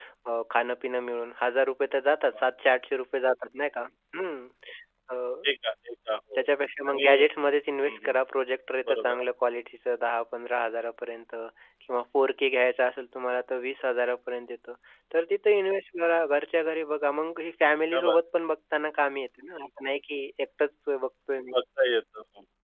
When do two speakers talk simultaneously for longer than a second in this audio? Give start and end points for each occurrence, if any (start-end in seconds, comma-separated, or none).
none